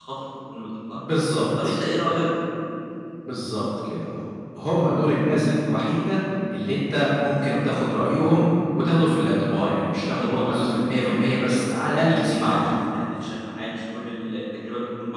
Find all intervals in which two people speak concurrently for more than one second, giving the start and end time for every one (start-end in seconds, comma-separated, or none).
10.2-12.8